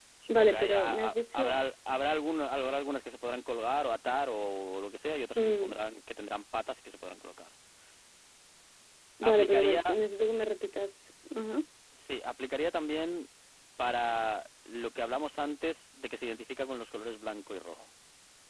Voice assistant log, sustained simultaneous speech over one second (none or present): present